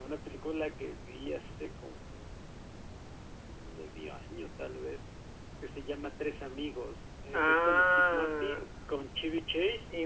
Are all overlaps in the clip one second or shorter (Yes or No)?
No